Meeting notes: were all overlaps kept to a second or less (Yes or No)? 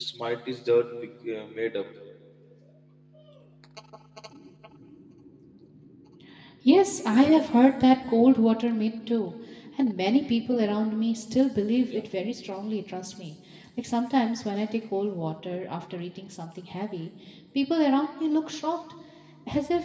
Yes